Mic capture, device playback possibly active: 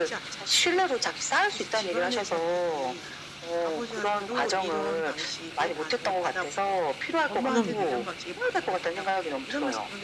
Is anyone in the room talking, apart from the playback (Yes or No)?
Yes